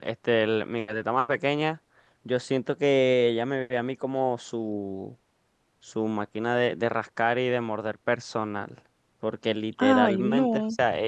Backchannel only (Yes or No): Yes